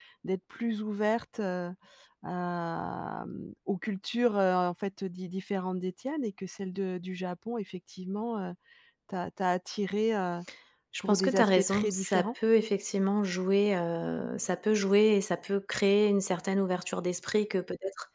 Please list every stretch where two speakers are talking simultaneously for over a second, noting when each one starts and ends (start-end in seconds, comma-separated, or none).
11.1-12.3